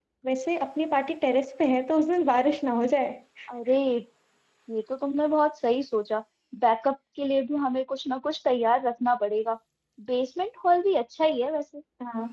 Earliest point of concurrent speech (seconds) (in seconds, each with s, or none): none